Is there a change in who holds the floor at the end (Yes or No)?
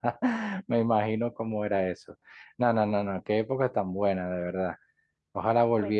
No